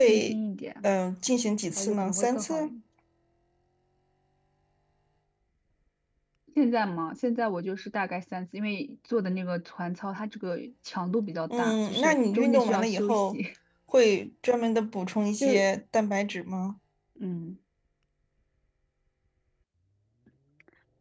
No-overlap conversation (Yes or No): No